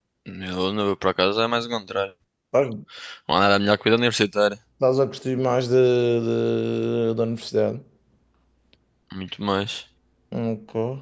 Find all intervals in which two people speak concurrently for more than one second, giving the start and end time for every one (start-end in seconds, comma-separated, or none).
none